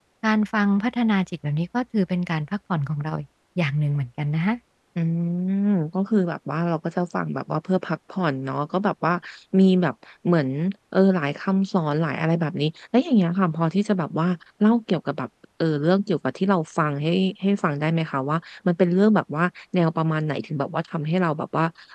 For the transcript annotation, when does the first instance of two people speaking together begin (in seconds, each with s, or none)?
none